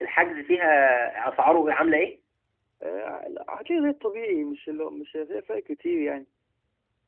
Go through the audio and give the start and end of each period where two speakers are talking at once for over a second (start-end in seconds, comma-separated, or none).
none